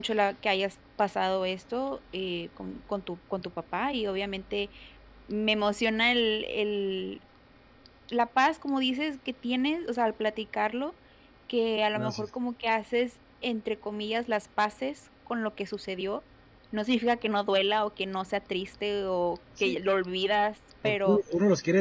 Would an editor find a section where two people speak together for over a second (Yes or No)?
No